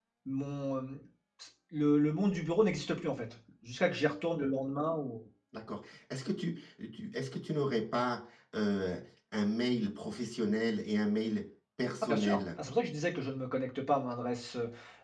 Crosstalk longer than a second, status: none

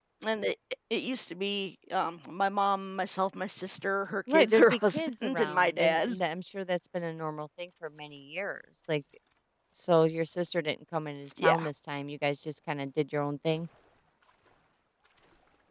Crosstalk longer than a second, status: present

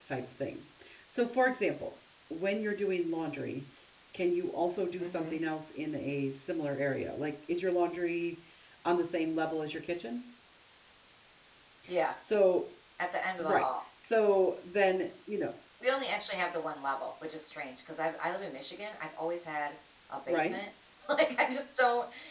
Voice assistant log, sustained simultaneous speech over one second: none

